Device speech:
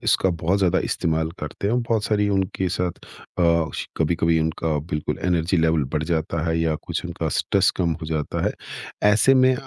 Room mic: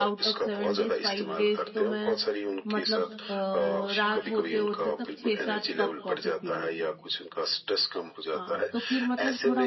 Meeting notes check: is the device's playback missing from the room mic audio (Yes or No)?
No